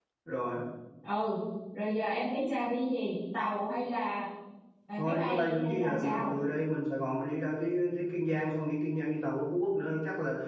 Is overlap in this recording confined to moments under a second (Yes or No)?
No